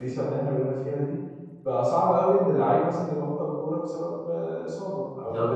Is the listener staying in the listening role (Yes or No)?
Yes